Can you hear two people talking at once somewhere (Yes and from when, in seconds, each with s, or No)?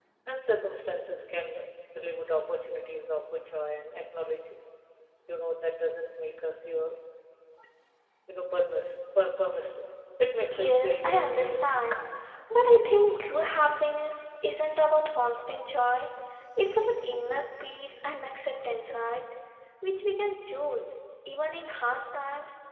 Yes, from 10.5 s